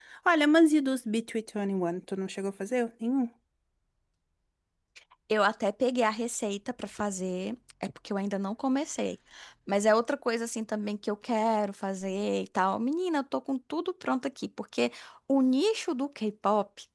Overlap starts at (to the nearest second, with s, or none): none